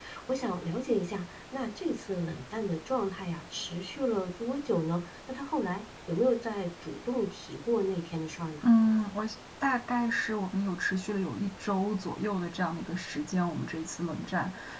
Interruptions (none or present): none